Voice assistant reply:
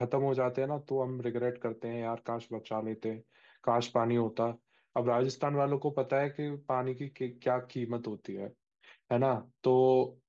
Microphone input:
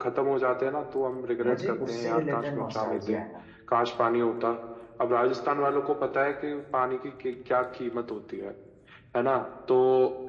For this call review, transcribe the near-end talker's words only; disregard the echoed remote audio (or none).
मुझे उससे रिलेटेड नॉस्टैल्जिया आया